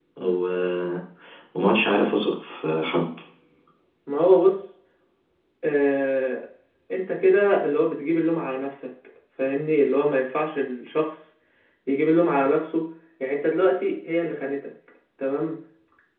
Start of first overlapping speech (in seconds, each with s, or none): none